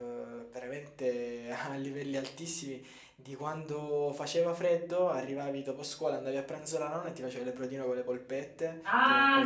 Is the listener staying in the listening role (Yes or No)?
Yes